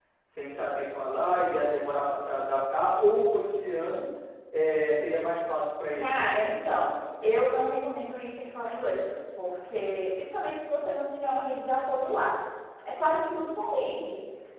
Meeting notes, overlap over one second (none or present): none